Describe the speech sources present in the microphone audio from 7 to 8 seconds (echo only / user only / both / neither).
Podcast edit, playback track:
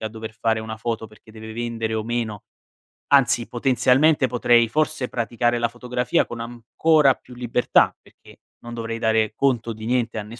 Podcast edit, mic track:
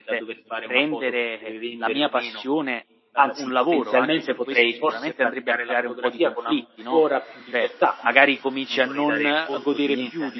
both